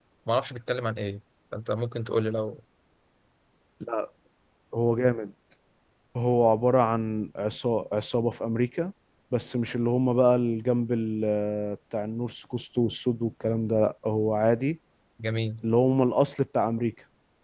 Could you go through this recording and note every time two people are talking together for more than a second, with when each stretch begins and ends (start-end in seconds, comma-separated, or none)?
none